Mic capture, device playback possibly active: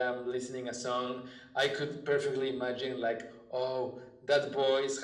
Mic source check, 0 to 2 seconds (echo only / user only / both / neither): echo only